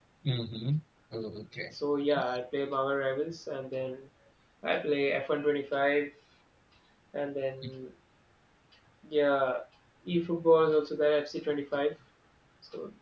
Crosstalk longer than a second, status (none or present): none